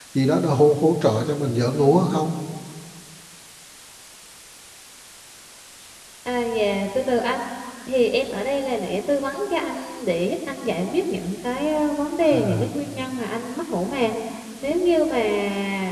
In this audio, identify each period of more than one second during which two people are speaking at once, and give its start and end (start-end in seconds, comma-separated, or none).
none